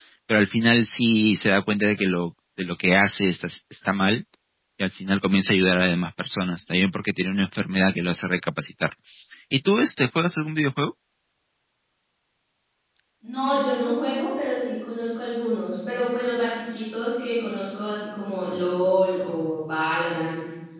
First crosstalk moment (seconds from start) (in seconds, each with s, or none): none